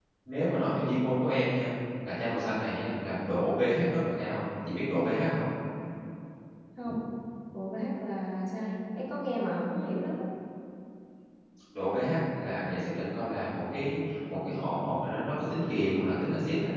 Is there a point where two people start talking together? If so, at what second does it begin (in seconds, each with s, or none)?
none